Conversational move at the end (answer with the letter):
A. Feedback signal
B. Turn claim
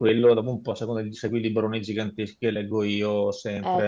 A